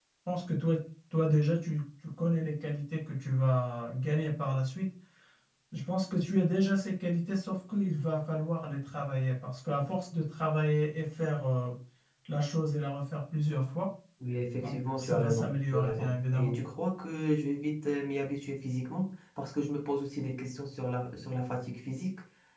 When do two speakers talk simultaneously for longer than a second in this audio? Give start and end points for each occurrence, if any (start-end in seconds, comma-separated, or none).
14.6-16.6